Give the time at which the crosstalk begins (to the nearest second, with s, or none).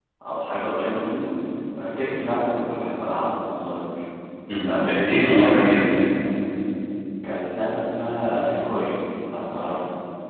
5 s